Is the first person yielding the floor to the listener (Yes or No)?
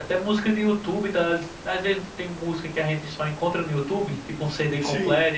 No